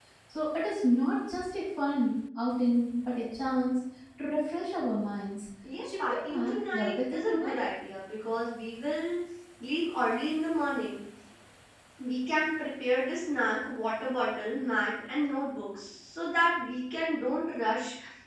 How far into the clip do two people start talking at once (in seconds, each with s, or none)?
5.6 s